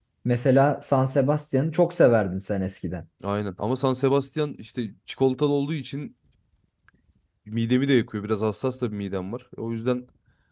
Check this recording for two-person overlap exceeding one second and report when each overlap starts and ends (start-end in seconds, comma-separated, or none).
none